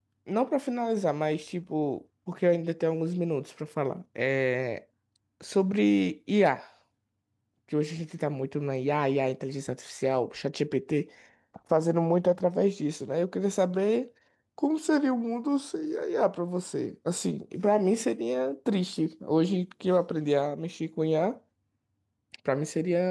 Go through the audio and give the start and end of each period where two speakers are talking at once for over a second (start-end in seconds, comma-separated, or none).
none